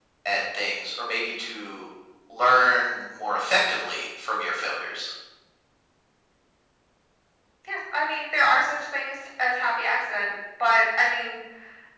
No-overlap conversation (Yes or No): Yes